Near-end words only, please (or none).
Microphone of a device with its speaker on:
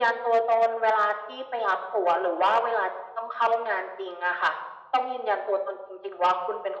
none